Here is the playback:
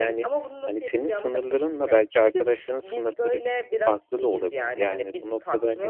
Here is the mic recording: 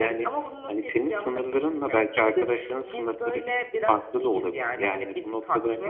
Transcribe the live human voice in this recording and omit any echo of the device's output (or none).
none